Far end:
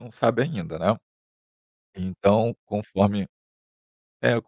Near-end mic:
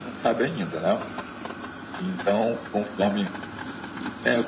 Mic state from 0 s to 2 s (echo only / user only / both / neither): echo only